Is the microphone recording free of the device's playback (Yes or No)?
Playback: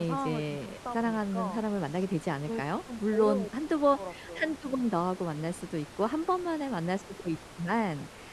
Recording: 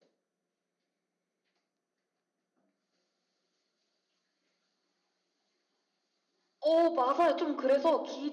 Yes